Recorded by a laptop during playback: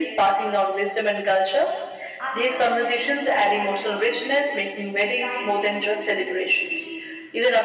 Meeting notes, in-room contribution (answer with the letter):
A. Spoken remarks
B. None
A